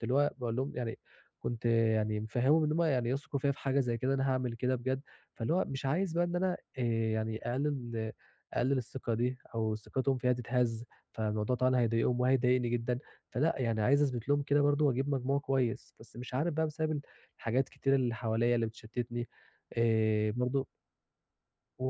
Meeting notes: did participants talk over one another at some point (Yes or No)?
No